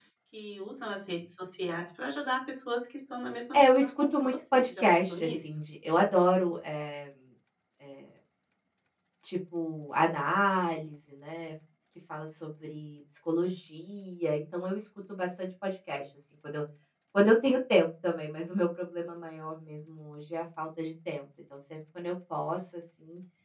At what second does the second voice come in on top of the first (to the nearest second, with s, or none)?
4 s